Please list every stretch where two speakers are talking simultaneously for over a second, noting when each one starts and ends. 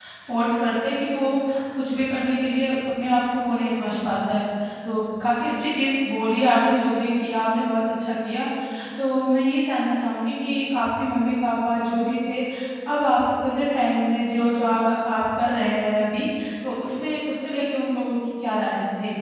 none

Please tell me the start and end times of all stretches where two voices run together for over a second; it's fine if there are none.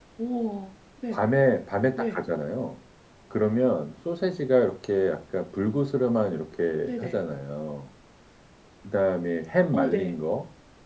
none

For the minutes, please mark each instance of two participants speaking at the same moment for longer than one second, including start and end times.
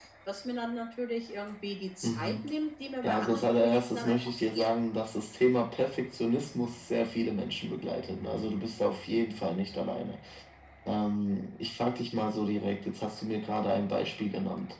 3.0-4.7

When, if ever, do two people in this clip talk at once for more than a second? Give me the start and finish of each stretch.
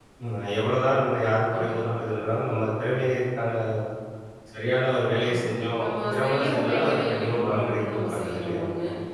5.8-8.6

